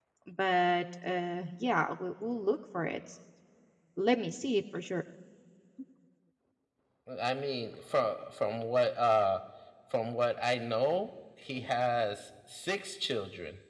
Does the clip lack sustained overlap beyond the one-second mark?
Yes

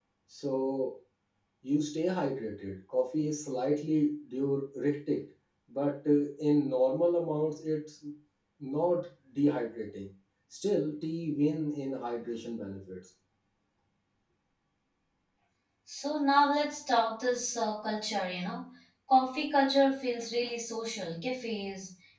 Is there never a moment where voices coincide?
Yes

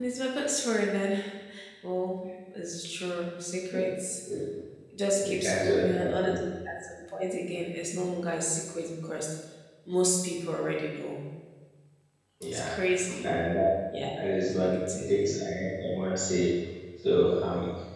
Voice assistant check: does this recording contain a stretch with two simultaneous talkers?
Yes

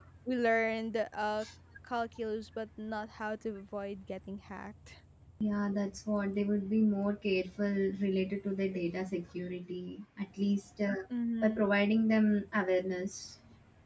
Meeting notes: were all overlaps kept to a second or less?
Yes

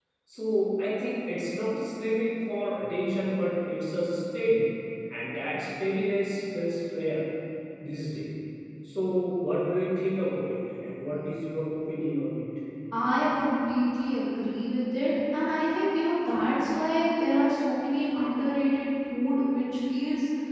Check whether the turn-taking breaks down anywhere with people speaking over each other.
No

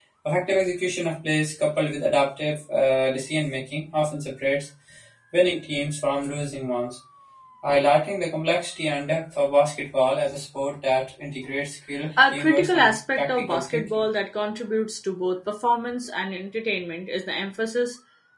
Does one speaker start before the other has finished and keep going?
Yes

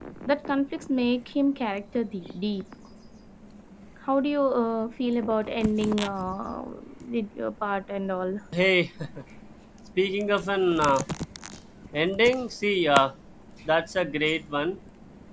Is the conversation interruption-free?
Yes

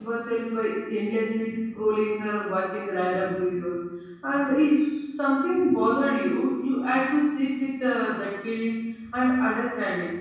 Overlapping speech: No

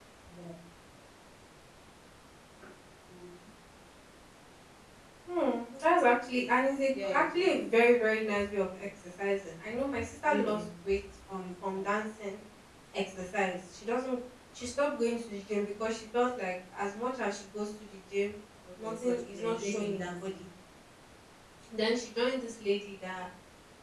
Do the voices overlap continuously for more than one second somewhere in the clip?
Yes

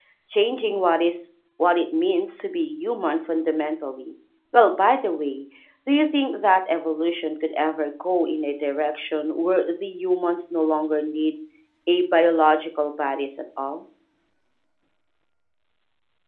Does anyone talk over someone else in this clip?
No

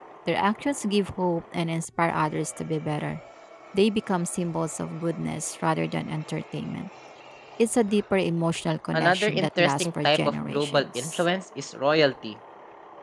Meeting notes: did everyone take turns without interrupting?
No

